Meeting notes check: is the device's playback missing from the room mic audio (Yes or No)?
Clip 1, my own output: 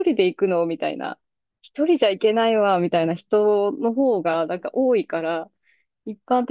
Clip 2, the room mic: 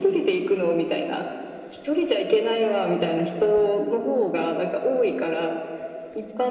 No